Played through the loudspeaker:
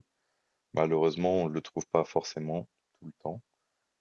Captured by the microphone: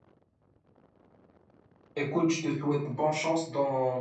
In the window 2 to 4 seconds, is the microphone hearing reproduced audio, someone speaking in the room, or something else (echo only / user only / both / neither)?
user only